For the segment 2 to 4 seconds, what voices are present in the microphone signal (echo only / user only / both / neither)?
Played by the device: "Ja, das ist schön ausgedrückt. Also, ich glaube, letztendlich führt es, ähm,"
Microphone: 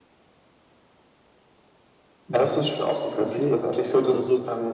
both